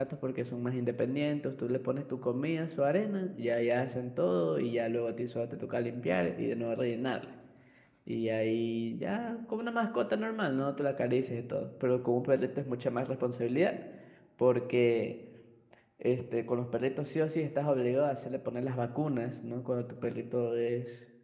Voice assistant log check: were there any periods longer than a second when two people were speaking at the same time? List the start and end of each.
none

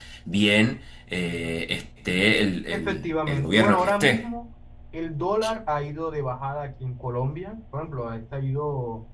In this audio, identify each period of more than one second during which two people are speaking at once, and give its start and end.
2.7-4.2

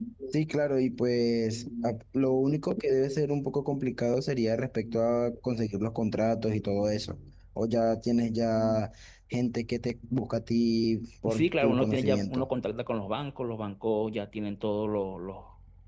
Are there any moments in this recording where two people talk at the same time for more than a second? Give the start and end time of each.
11.2-12.5

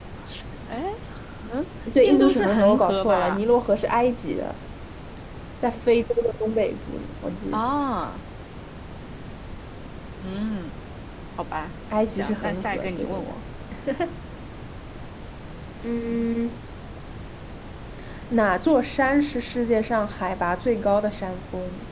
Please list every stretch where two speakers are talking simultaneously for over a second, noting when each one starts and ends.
2.0-3.4, 12.1-13.4

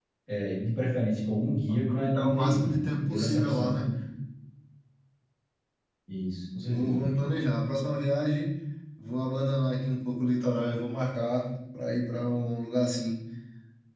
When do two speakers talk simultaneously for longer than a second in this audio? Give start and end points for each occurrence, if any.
1.7-3.7

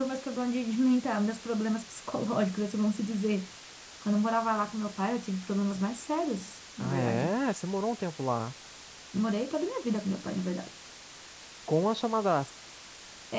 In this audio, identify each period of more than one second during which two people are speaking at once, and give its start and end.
none

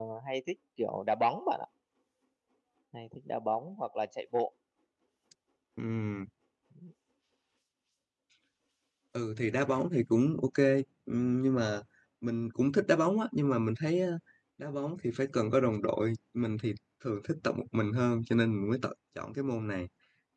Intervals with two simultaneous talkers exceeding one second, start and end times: none

